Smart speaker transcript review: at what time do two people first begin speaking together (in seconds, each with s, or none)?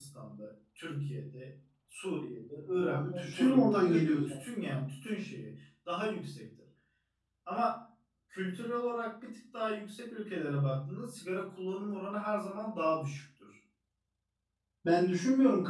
2.9 s